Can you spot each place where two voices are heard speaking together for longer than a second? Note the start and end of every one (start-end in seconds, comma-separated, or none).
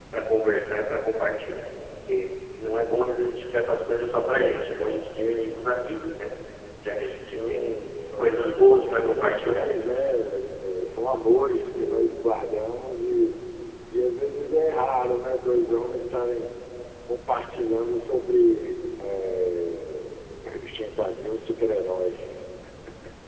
8.2-9.7